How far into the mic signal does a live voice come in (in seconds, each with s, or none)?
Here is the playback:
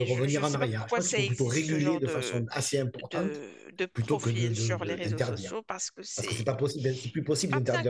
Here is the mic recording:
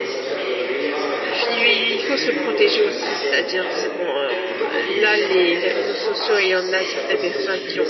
1.3 s